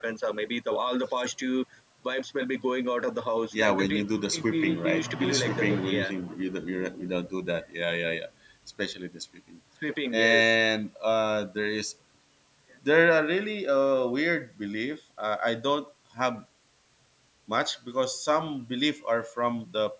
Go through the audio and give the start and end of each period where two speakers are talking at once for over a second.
4.5-6.1

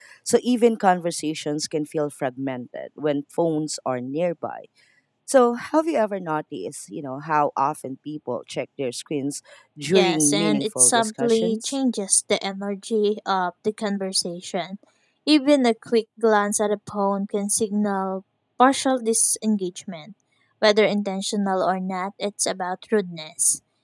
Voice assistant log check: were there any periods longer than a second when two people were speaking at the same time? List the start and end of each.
9.9-11.8

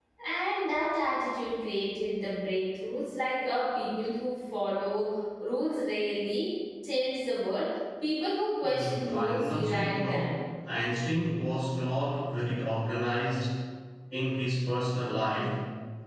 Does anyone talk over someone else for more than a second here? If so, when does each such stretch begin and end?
8.6-10.3

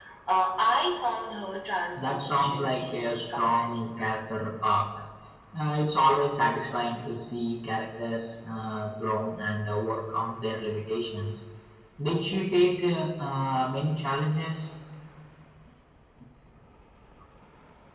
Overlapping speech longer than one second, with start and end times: 2.0-3.8

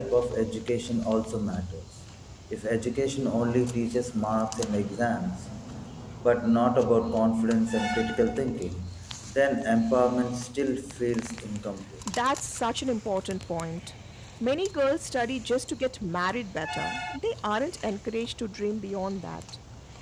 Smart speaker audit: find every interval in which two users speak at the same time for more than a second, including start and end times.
none

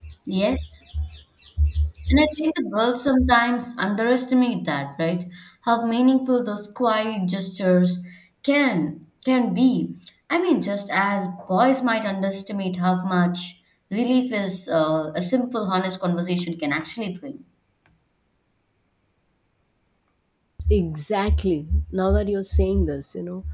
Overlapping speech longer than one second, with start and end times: none

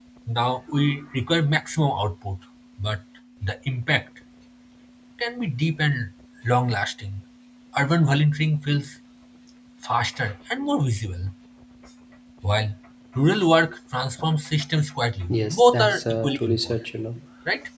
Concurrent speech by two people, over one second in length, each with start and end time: 15.3-16.8

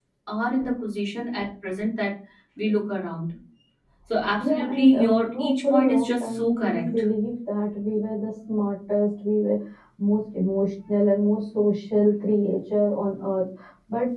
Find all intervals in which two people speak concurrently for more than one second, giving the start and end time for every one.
4.4-6.8

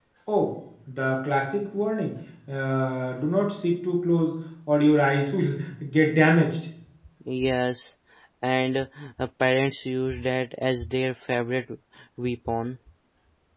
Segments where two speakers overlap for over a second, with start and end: none

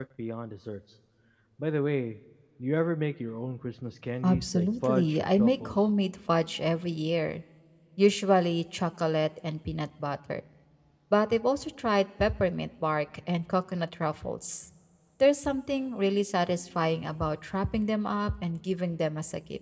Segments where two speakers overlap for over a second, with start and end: 4.2-5.8

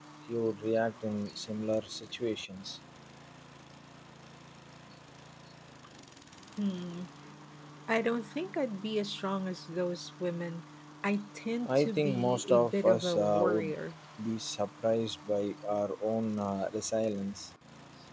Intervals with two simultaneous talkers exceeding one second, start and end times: 11.7-13.7

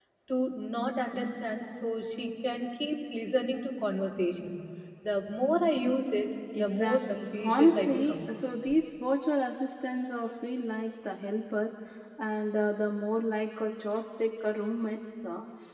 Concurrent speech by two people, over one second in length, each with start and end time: 6.6-8.2

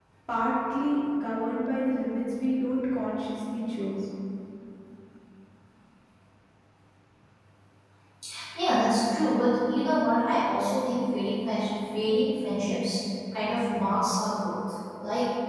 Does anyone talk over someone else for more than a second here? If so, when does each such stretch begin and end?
none

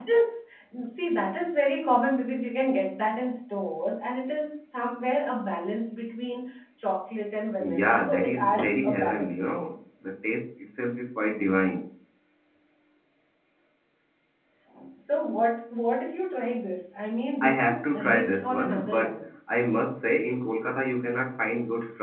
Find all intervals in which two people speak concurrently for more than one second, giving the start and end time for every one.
7.6-9.3, 17.4-19.2

